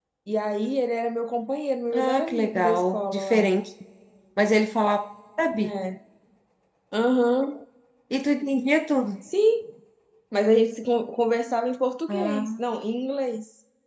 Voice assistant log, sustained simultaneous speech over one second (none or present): present